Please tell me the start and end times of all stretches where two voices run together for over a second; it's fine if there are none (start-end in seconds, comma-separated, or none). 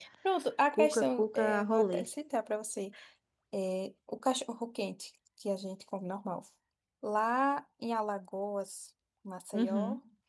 0.7-2.0